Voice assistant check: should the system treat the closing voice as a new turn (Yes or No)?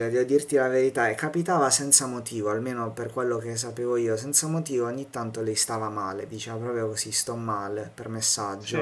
No